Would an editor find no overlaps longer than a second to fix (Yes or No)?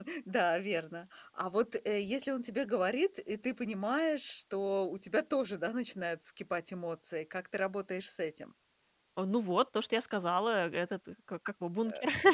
Yes